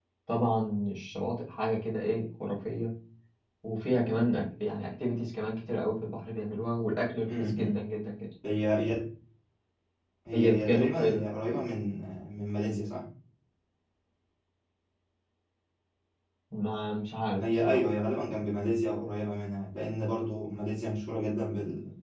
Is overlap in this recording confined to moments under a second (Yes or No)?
No